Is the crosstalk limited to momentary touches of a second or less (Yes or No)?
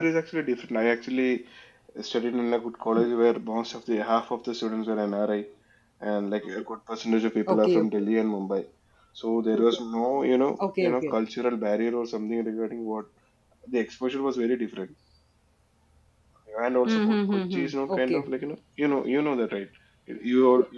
No